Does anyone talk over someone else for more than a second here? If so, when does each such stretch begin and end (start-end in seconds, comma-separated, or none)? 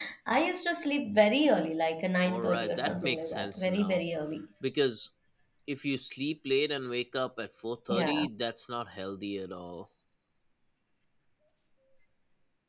2.2-4.0